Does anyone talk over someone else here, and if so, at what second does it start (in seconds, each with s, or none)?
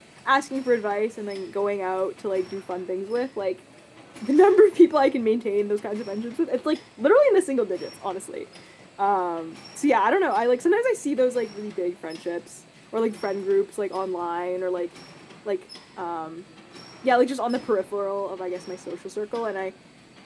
none